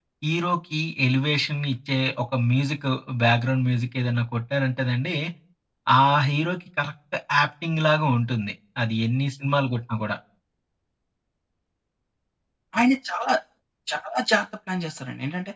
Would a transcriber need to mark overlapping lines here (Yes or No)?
No